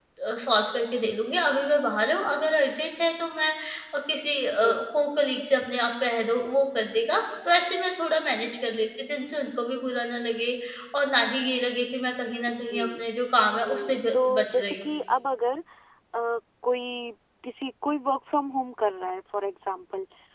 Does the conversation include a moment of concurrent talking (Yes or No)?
Yes